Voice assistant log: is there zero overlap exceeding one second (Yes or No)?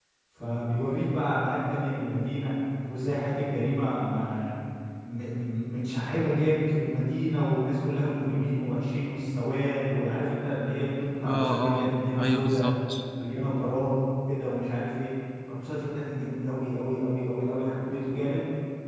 No